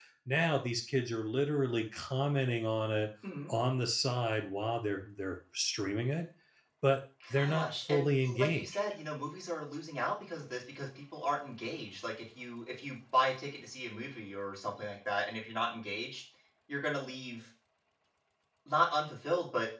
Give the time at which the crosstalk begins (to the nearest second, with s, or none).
7 s